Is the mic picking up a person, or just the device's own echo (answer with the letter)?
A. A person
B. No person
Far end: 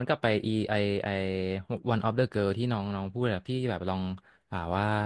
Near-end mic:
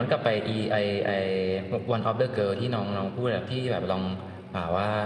B